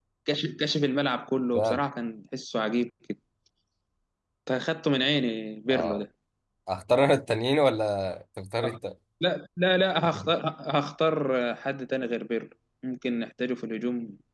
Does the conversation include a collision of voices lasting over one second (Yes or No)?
No